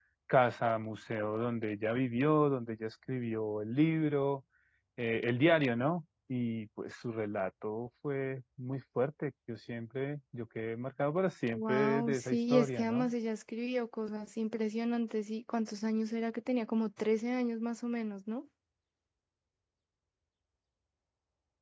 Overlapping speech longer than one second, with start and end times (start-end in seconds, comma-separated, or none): 11.5-13.1